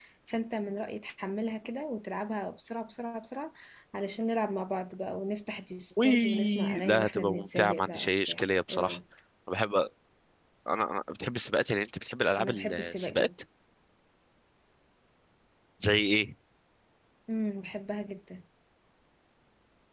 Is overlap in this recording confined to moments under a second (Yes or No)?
No